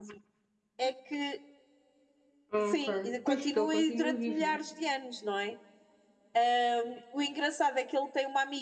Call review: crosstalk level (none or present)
present